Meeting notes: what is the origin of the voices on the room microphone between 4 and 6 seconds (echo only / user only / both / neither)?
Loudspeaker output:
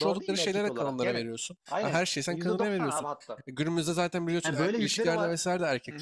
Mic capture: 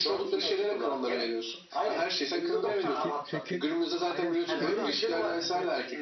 both